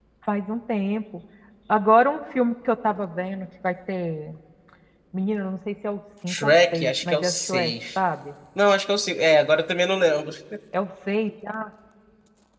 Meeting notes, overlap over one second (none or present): present